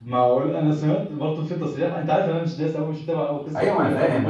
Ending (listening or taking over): taking over